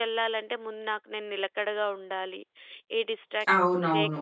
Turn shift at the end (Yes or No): Yes